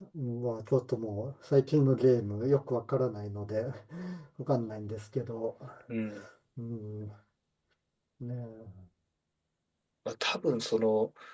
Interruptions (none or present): none